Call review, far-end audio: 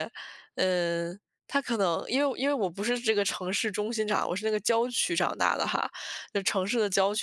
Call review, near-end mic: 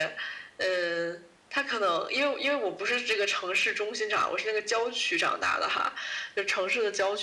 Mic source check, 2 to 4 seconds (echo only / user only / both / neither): echo only